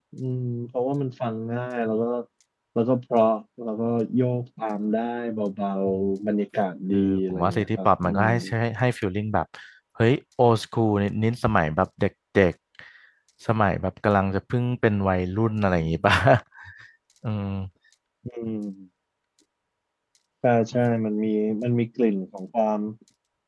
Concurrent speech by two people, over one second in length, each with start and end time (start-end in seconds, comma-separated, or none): 6.9-8.3